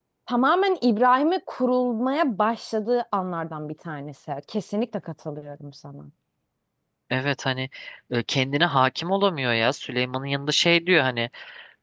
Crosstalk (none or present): none